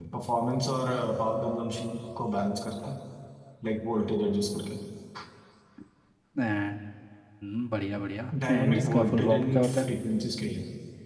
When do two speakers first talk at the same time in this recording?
8 s

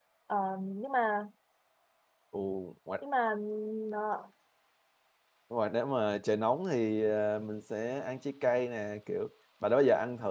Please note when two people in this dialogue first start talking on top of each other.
none

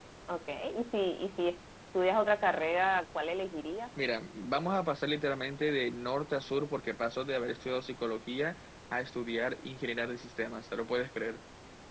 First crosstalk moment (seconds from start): none

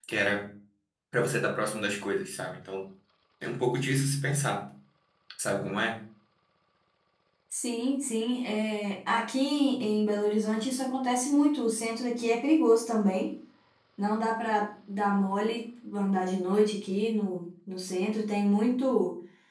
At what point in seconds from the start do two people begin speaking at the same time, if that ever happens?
none

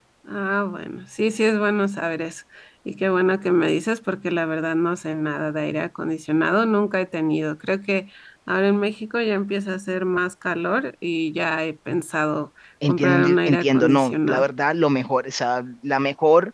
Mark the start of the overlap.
13 s

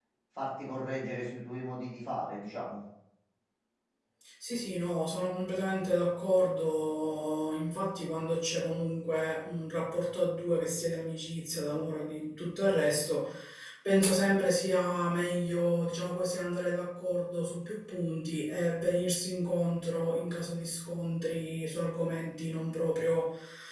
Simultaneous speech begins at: none

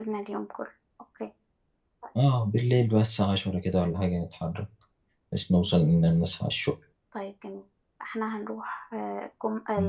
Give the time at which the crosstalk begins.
none

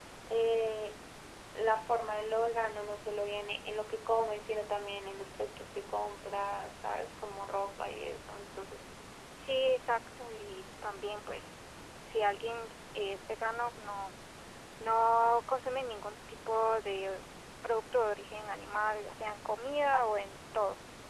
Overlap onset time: none

